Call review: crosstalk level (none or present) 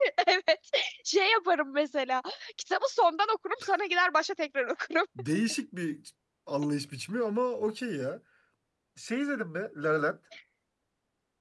none